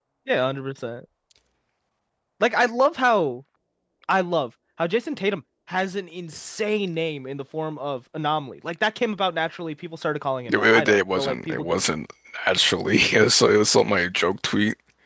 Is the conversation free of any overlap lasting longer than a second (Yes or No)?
No